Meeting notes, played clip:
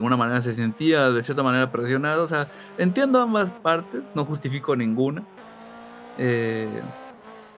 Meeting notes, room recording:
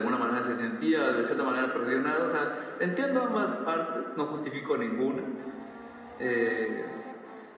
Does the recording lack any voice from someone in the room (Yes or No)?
Yes